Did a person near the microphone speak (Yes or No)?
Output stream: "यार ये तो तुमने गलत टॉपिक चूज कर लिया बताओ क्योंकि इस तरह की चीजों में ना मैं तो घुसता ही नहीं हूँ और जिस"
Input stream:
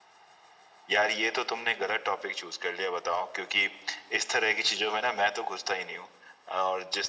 No